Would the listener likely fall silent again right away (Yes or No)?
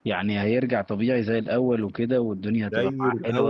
No